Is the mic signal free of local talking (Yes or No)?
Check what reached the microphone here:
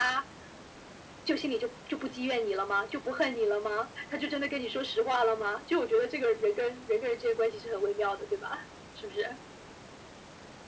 Yes